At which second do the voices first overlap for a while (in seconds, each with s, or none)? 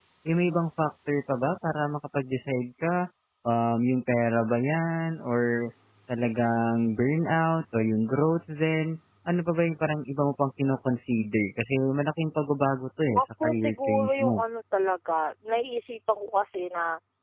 13.2 s